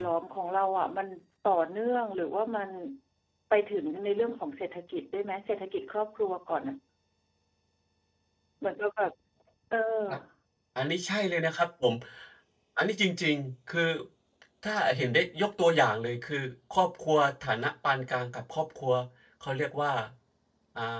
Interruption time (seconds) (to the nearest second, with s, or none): none